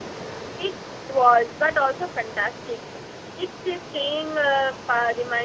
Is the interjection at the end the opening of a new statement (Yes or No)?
No